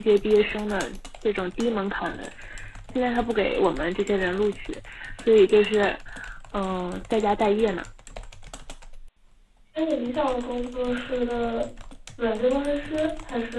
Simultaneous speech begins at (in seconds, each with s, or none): none